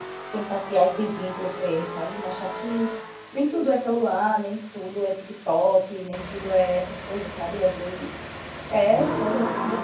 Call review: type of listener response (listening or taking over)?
listening